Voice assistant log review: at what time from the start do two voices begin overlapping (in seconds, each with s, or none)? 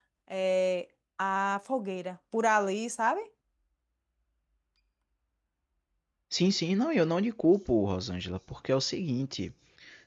none